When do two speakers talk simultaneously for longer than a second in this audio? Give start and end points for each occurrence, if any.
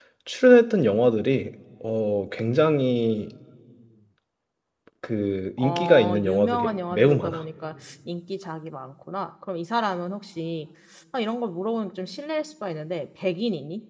5.6-7.4

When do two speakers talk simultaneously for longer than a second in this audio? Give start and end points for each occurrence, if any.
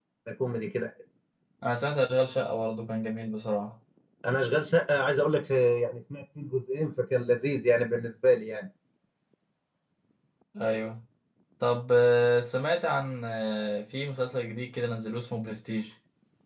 none

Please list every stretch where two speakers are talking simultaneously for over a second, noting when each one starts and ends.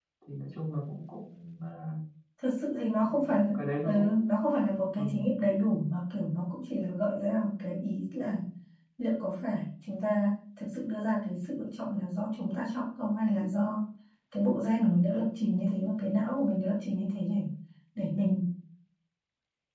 3.1-4.5

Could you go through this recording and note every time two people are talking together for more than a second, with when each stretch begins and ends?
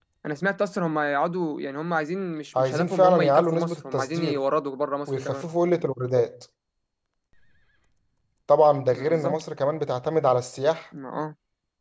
2.5-4.4

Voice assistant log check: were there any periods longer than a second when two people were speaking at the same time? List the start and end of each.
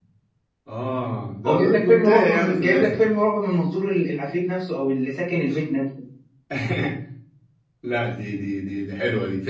1.5-3.0

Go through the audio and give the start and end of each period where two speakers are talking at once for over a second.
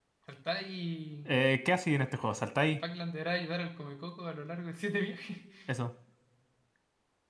none

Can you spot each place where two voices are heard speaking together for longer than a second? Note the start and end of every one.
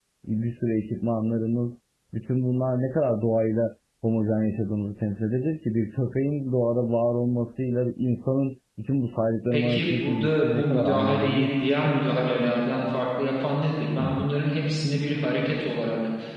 9.5-11.5

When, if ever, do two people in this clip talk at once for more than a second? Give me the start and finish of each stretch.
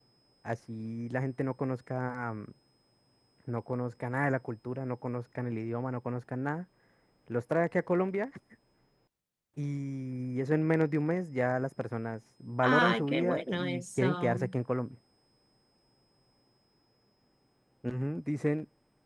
12.6-14.4

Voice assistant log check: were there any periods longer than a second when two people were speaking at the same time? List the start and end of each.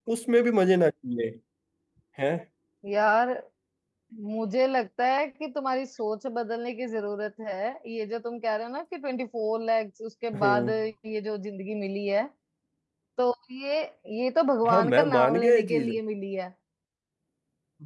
14.7-15.9

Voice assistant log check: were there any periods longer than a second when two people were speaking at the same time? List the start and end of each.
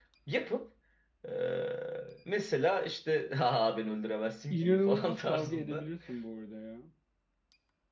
4.5-5.8

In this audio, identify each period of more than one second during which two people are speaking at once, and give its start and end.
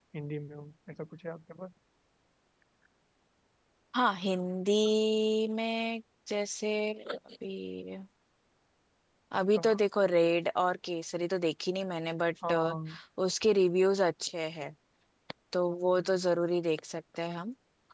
none

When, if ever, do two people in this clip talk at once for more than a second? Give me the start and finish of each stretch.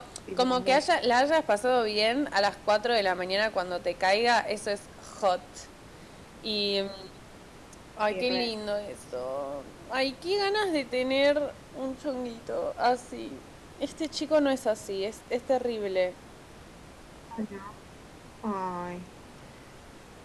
none

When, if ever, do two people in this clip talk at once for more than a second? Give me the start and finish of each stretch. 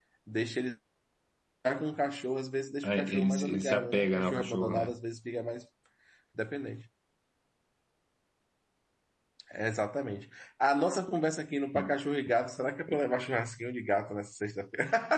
2.8-4.9

